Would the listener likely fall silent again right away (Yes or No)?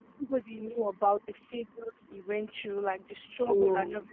Yes